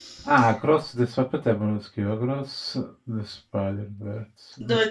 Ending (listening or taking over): taking over